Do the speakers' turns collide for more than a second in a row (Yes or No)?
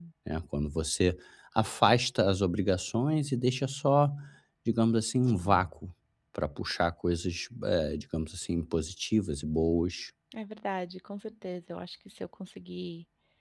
No